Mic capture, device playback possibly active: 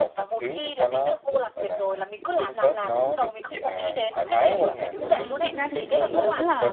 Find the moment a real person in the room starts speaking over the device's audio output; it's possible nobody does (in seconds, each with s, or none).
5.0 s